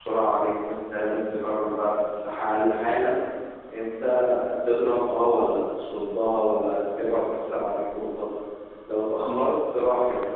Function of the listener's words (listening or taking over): listening